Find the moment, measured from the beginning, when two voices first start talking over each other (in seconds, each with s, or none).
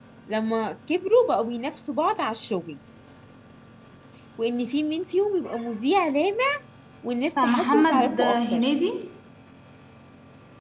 7.4 s